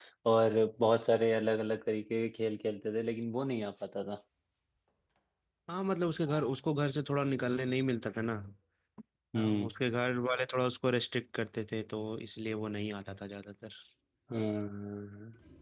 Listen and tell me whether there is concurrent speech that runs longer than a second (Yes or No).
No